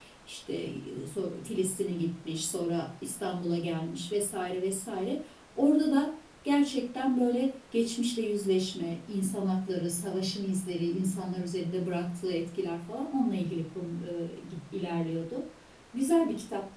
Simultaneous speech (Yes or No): No